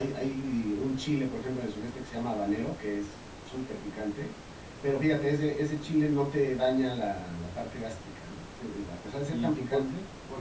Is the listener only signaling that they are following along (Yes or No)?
No